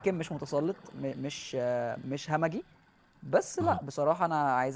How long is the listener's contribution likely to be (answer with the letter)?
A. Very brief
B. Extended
A